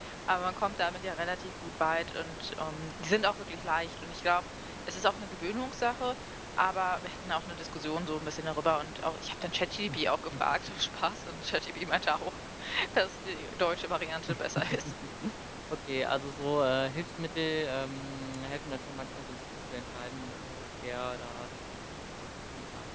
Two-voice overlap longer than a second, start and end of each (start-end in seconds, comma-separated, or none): none